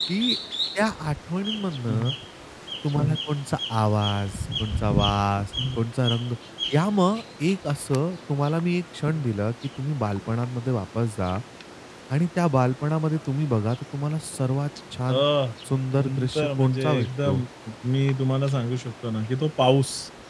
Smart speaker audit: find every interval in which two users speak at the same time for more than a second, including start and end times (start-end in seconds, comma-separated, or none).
16.0-17.4